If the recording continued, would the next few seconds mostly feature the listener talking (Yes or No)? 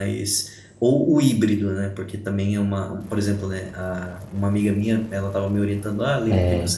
No